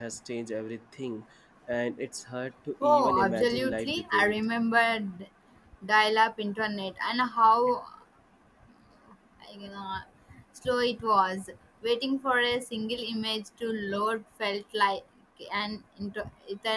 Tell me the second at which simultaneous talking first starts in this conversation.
2.8 s

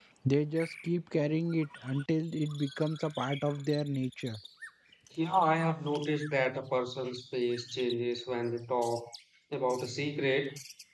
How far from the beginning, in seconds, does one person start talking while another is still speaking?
none

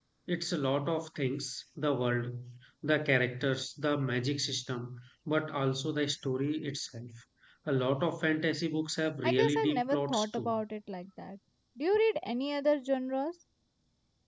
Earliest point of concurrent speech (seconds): 9.2 s

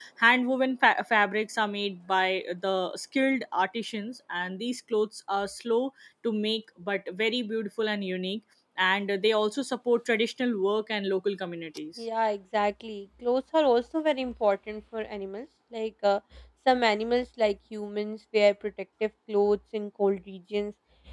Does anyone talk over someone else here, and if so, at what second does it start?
none

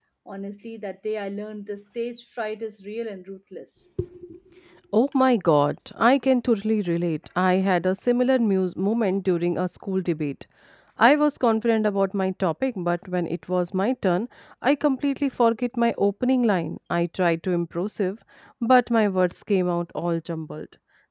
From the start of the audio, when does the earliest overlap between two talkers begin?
none

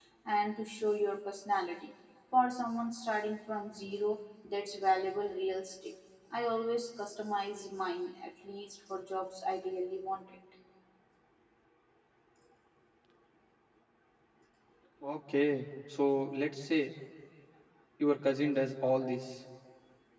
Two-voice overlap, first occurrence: none

